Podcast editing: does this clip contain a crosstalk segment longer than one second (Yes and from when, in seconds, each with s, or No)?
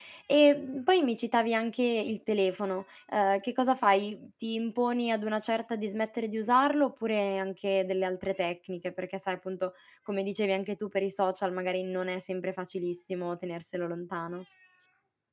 No